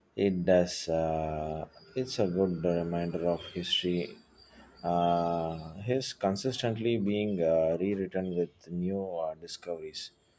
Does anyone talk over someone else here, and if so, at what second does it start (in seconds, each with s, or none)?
none